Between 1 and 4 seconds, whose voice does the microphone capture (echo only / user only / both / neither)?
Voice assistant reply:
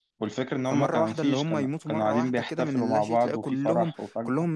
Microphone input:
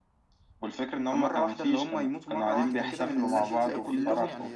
both